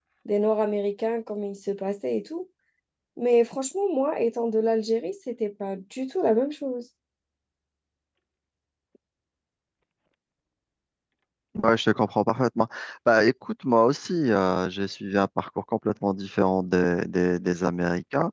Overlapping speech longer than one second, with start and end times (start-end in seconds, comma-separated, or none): none